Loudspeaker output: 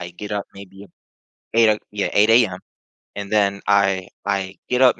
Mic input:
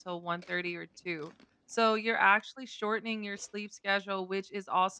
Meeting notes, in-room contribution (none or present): present